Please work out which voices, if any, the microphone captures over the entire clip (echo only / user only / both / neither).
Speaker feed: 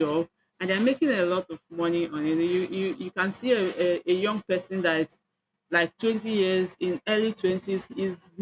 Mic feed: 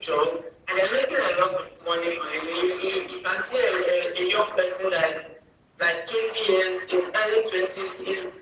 echo only